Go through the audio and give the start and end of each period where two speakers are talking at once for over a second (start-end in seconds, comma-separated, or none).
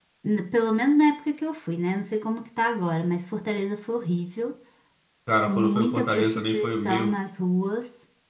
5.5-7.1